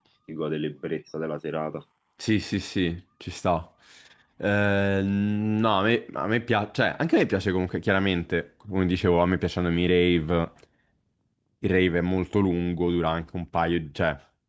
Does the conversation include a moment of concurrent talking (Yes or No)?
No